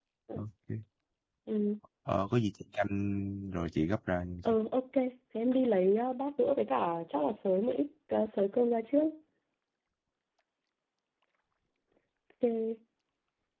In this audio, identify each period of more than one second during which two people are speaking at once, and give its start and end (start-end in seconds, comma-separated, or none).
none